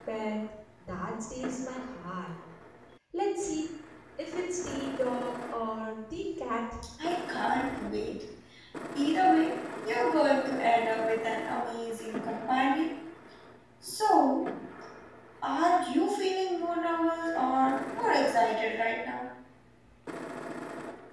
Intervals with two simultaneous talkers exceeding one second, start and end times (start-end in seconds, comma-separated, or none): none